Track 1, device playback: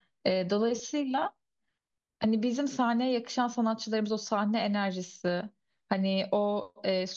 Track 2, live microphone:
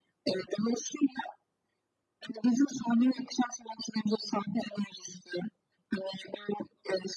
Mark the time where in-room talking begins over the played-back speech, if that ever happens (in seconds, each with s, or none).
none